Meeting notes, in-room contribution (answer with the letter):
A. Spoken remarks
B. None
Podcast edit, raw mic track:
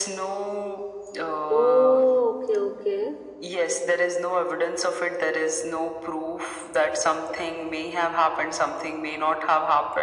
A